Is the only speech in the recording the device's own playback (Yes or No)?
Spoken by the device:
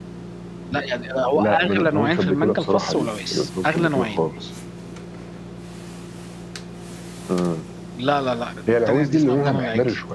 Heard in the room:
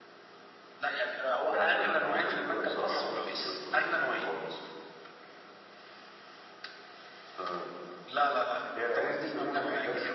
Yes